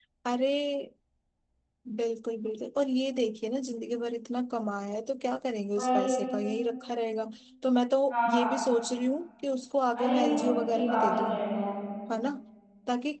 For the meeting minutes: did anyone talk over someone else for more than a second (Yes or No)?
Yes